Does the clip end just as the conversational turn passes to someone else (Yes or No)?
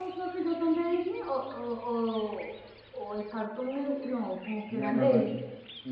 Yes